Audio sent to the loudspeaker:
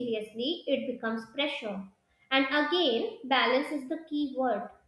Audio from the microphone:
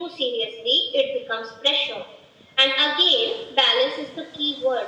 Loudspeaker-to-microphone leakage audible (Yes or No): Yes